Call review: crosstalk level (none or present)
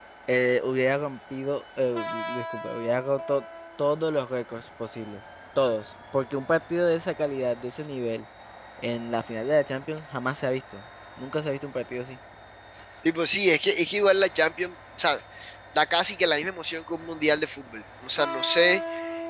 none